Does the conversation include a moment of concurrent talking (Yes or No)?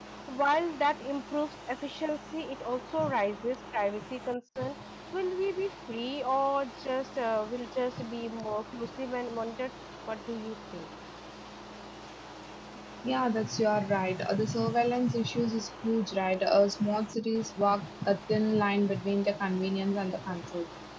No